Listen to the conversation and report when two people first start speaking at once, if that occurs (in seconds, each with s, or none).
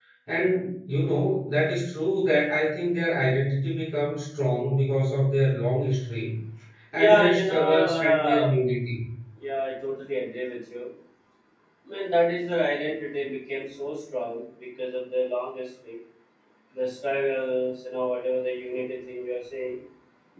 7.0 s